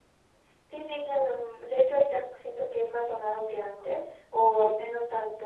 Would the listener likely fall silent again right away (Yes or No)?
Yes